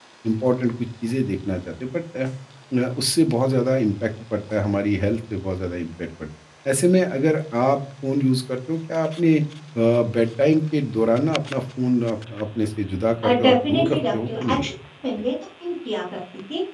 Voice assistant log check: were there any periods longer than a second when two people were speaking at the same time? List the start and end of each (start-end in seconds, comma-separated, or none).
13.2-14.7